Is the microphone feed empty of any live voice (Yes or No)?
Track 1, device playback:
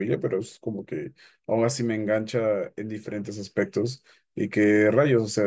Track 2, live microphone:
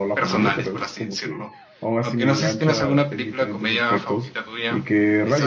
No